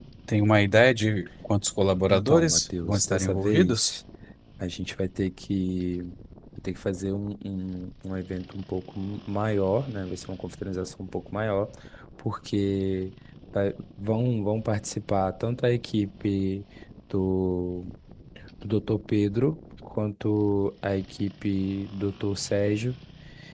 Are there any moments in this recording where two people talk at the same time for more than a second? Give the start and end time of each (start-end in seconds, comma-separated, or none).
2.1-3.9